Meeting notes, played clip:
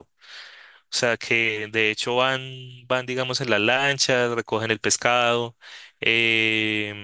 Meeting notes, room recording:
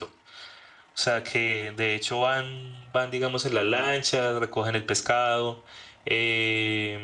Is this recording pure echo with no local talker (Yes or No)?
Yes